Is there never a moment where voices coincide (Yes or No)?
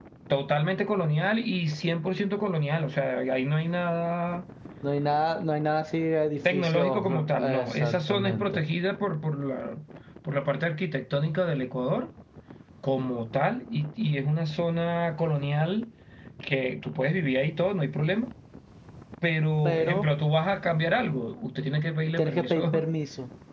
No